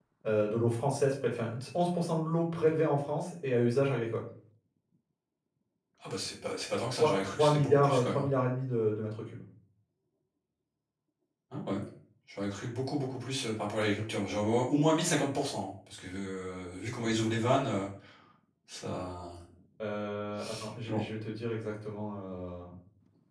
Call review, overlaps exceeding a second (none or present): present